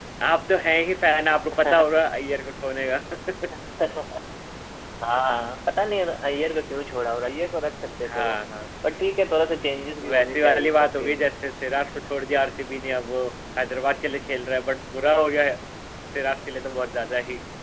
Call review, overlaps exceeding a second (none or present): present